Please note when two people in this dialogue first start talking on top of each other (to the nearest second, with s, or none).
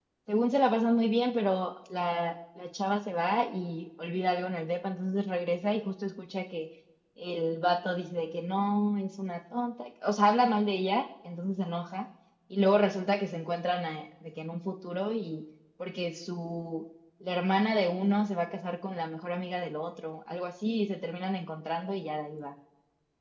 none